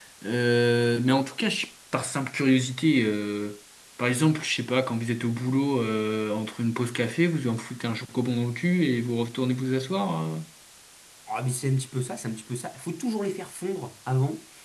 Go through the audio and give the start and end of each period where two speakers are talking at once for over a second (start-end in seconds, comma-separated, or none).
none